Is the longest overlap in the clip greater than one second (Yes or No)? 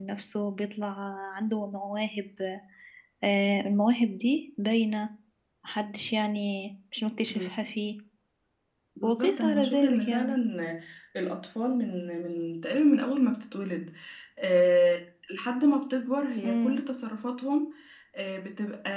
Yes